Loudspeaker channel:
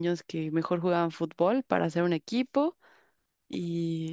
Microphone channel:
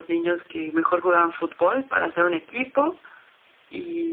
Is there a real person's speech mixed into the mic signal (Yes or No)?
No